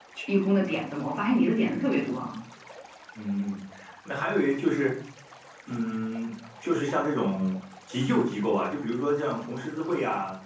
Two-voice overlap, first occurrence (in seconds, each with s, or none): none